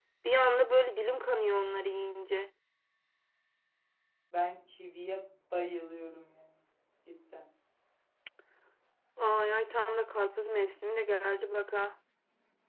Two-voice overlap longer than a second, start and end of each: none

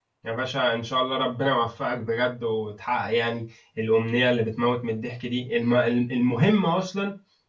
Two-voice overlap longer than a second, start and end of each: none

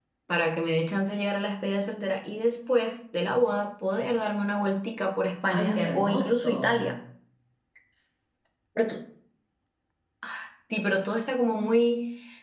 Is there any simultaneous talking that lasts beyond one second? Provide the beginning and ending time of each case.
5.5-7.0

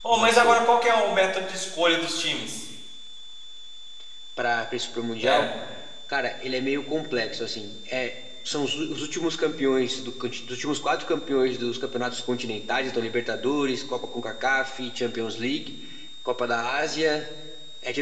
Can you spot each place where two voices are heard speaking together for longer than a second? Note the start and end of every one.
none

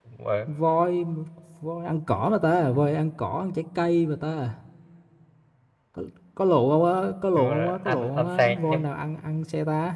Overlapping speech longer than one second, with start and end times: 7.4-8.9

